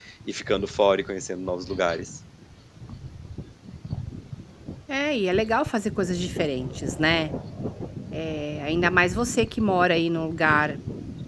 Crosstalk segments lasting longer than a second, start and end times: none

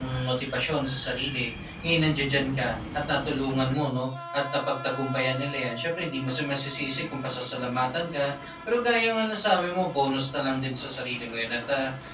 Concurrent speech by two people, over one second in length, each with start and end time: none

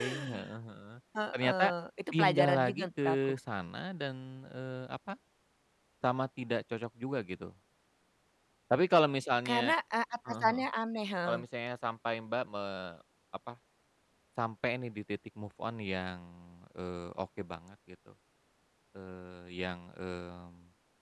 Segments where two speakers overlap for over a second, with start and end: 2.1-3.3

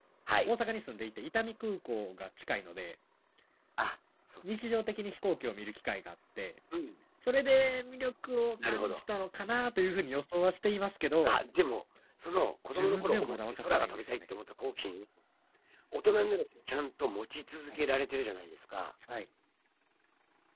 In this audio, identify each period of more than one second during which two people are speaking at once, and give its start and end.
12.8-14.1

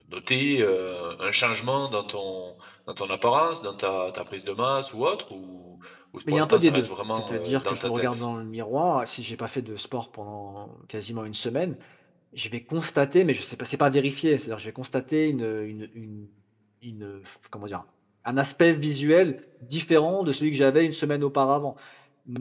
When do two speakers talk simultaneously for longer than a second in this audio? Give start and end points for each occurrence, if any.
6.3-8.2

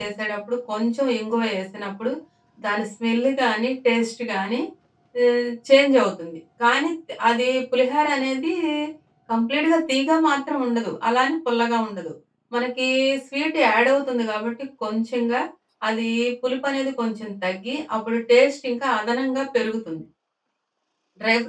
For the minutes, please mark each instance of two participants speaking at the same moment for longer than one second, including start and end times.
none

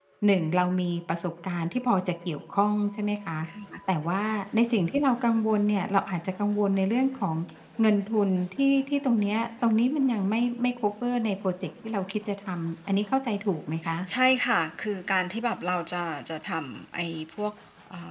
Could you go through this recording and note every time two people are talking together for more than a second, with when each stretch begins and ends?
none

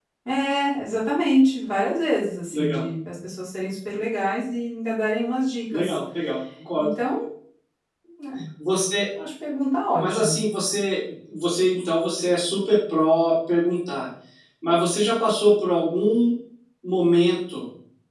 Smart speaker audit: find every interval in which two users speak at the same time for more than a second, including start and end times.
none

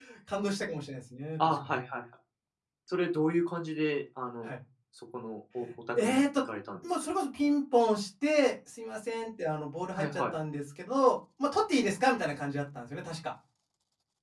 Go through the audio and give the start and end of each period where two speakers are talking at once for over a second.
none

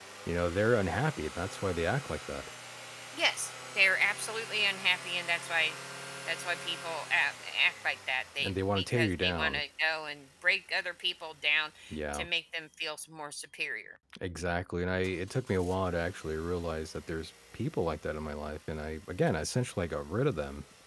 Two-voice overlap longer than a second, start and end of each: 8.4-9.6

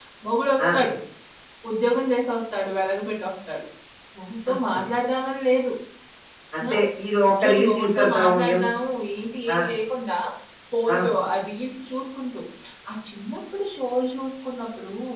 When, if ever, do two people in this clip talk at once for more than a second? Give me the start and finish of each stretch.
7.2-8.6

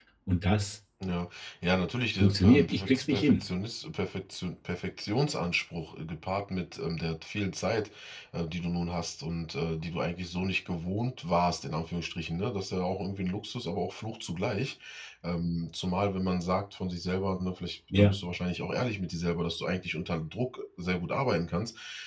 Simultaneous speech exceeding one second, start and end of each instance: 2.2-3.4

